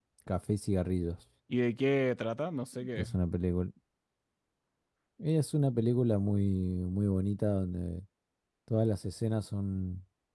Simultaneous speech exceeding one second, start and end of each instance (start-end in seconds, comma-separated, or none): none